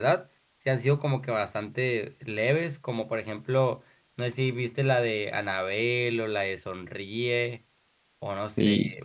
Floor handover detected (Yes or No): Yes